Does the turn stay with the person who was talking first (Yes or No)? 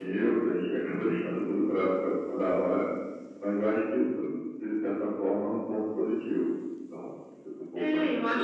No